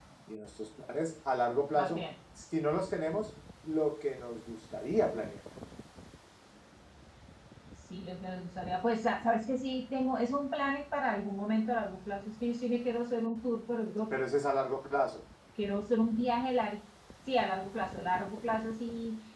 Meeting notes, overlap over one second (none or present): none